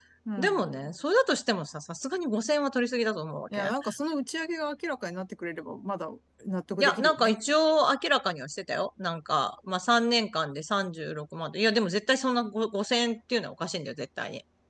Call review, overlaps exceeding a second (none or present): none